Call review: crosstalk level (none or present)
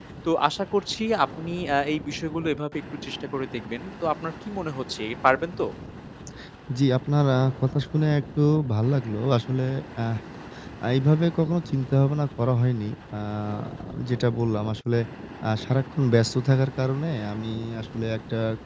none